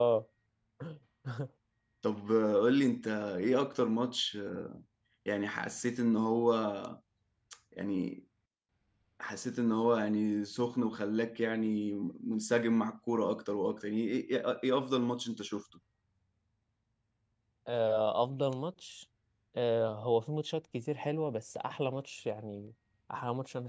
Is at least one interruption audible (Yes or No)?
No